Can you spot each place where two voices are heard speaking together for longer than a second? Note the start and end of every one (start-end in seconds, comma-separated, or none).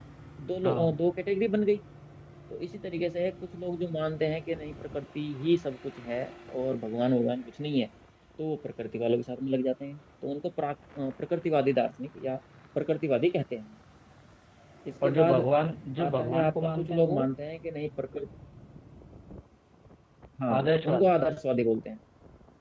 16.0-17.2